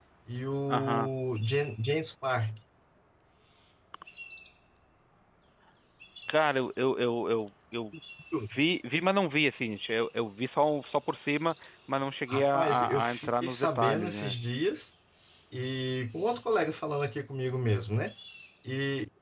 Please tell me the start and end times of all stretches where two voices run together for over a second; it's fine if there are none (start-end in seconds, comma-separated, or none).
12.3-14.3